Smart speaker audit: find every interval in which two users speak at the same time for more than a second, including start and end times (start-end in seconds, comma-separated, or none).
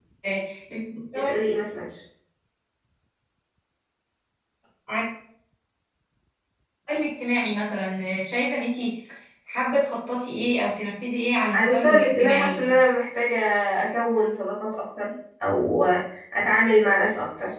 11.5-12.8